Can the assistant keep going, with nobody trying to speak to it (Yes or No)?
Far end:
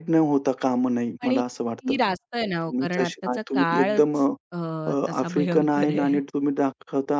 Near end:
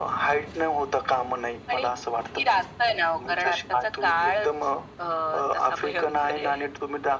Yes